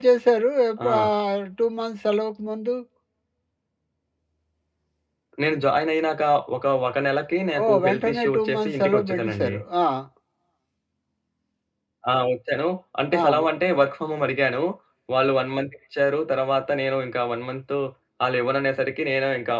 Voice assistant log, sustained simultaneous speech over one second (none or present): present